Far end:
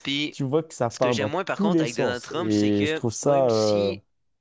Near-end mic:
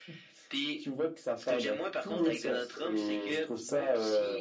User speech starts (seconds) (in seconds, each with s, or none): none